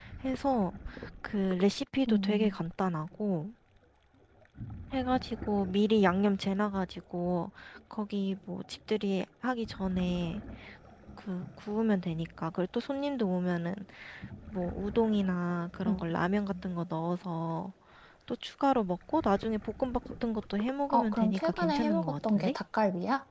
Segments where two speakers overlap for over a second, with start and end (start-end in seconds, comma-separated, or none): 20.9-22.5